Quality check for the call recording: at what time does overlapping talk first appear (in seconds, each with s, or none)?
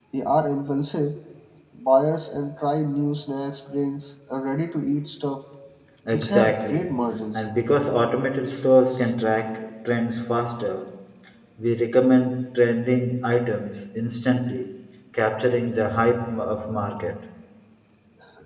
6.1 s